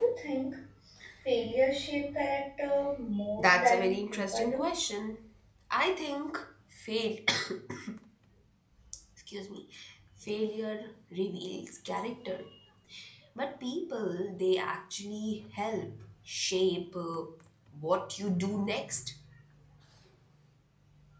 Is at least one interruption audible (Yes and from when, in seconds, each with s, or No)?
Yes, from 3.4 s